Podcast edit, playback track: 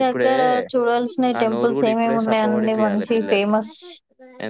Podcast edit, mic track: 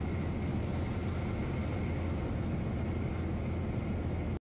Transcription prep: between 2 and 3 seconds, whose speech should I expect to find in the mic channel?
neither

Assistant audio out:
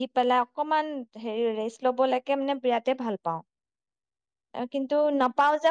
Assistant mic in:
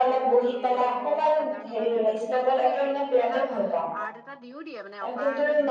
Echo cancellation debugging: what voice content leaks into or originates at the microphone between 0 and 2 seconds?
both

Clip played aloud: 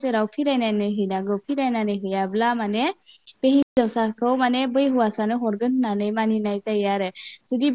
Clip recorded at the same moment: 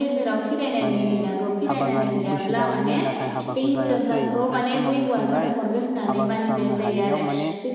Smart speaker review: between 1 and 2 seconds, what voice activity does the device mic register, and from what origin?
both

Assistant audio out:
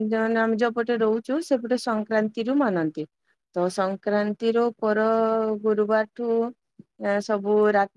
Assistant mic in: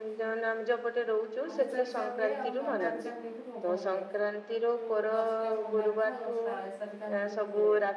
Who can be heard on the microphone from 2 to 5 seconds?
both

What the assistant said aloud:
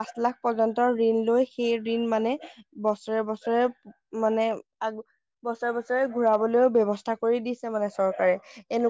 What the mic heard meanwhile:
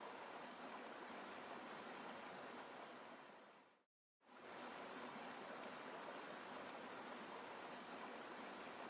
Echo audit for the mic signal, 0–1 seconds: neither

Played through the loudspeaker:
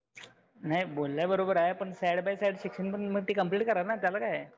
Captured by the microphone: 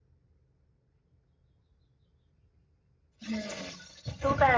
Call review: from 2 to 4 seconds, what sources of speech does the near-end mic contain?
user only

